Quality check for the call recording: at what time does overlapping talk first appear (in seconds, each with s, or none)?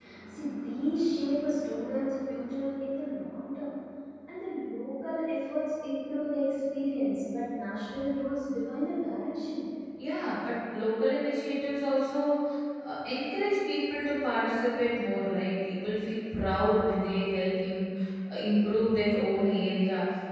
none